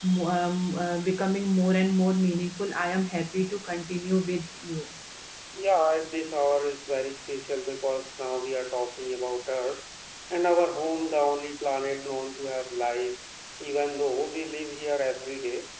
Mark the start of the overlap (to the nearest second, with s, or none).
none